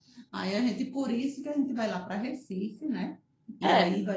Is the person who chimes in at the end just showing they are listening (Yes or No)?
No